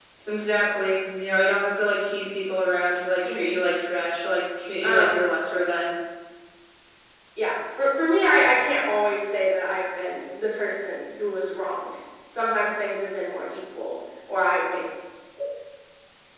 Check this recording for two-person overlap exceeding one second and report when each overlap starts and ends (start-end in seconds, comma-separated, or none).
none